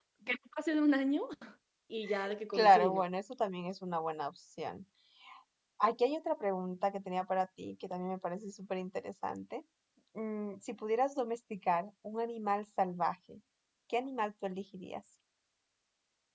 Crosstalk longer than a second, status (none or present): none